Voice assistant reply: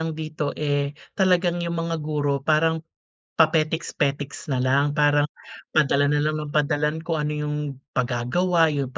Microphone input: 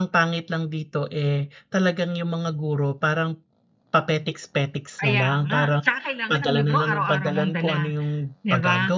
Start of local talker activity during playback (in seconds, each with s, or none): 5.0 s